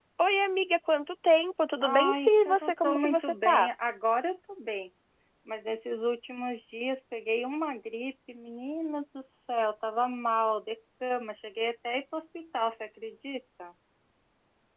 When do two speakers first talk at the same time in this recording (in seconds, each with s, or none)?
1.8 s